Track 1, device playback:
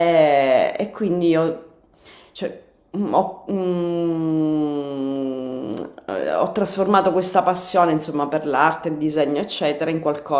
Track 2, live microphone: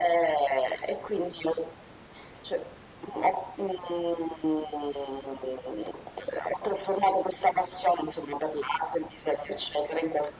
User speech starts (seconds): none

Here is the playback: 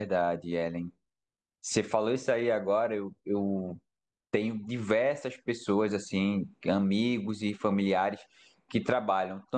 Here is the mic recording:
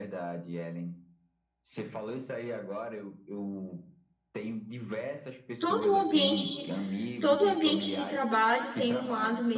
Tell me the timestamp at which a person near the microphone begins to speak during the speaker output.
5.6 s

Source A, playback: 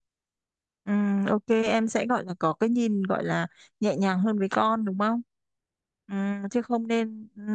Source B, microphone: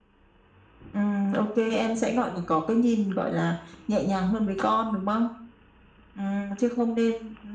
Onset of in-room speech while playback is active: none

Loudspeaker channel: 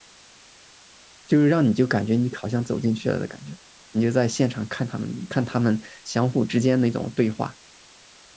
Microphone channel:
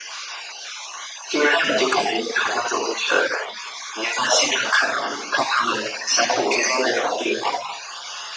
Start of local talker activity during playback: none

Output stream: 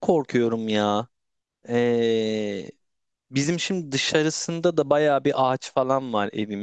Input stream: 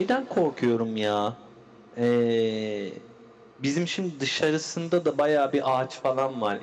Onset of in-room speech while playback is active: none

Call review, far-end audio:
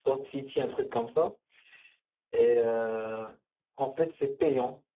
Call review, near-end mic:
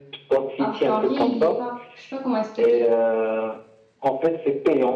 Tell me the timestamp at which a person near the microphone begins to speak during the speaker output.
0.6 s

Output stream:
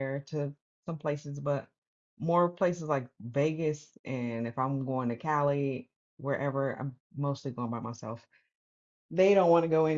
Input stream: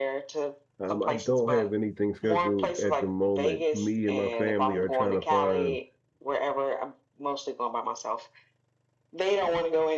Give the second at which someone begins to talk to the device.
0.8 s

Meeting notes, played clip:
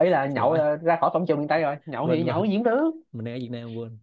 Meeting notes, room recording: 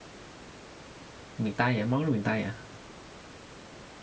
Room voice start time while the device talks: 1.4 s

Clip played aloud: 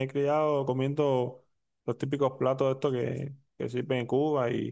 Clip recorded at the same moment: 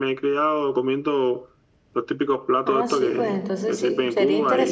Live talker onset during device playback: 2.6 s

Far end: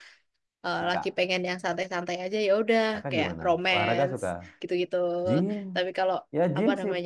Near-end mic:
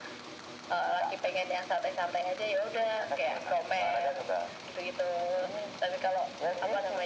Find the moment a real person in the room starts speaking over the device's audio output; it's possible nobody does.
none

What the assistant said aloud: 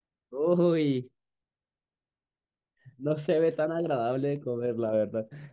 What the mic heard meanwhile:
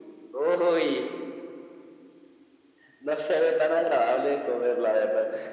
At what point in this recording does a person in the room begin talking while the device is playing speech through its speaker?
none

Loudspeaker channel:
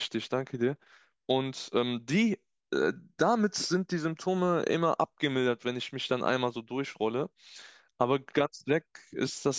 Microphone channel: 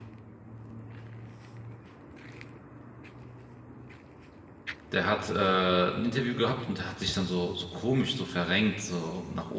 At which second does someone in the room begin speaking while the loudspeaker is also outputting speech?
4.9 s

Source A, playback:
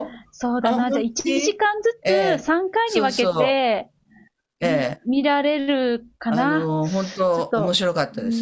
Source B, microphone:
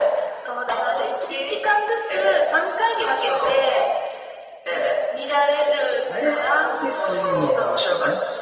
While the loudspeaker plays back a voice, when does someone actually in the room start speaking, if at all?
6.0 s

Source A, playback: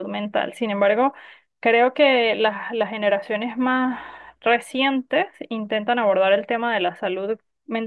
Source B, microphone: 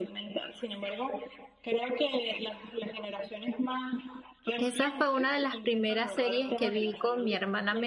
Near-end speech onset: 4.6 s

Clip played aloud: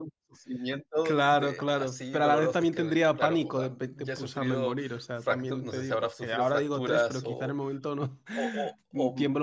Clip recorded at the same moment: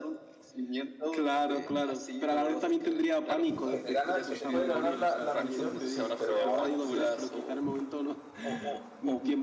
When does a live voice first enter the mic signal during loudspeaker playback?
3.7 s

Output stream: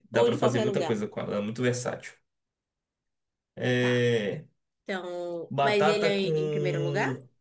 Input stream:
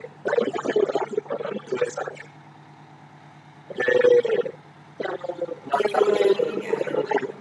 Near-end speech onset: 5.7 s

